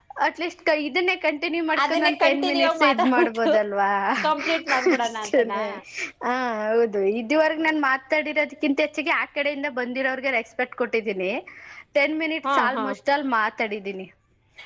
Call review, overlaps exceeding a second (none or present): present